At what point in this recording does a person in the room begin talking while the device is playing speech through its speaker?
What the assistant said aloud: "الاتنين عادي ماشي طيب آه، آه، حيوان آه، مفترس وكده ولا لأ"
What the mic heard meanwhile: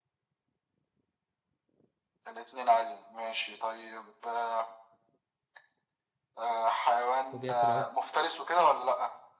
7.3 s

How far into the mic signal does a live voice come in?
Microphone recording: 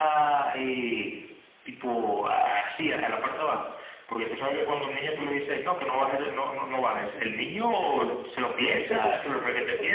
8.0 s

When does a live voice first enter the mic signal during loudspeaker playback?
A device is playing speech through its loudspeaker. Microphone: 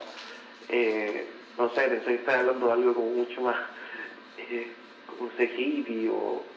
none

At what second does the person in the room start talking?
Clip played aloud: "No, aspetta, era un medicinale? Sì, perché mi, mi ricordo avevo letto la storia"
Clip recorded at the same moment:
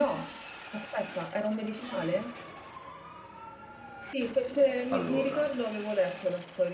4.9 s

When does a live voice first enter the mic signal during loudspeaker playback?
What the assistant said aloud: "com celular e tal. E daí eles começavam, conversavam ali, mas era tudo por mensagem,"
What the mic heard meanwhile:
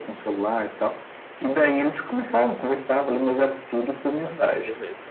4.2 s

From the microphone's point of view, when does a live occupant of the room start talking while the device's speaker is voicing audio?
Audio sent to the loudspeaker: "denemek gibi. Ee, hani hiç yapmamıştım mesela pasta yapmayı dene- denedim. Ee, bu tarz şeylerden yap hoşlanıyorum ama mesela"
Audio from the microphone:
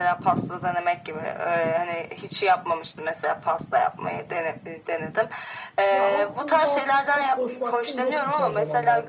5.9 s

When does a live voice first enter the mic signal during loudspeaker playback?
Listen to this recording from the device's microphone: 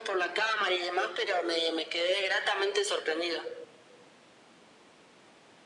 none

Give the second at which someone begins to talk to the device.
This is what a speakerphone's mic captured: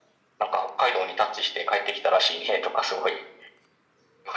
none

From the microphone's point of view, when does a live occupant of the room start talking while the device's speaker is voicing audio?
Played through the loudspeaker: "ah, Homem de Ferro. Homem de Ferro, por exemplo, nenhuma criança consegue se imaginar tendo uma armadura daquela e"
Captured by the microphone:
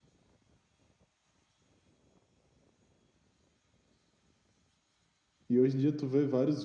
5.5 s

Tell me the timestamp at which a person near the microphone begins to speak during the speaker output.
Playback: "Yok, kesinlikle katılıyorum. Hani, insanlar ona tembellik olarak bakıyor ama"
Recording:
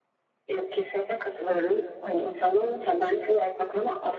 none

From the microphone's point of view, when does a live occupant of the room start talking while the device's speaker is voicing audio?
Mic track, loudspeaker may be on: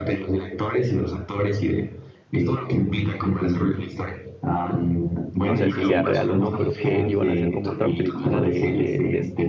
5.4 s

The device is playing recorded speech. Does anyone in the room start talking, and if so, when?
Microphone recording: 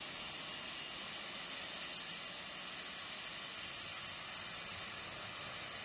none

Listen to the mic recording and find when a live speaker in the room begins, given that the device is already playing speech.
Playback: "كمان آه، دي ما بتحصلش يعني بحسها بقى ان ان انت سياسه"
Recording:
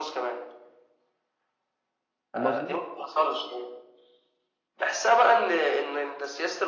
2.3 s

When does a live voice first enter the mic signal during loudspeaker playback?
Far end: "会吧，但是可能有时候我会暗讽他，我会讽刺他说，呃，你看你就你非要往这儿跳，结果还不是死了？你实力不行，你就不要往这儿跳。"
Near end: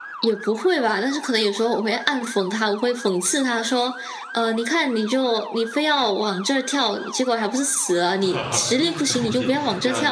8.2 s

